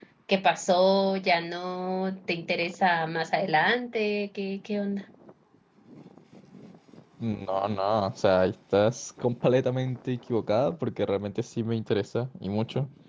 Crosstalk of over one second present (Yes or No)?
No